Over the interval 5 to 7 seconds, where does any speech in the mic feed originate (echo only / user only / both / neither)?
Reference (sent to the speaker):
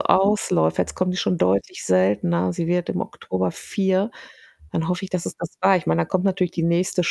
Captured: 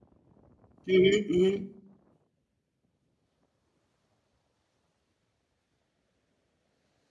neither